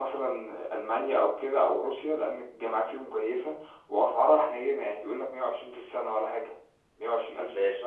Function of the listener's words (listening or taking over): listening